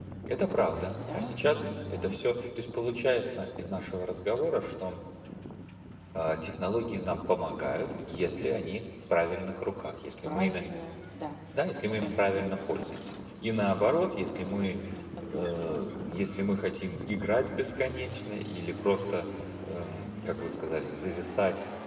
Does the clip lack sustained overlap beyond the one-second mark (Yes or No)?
No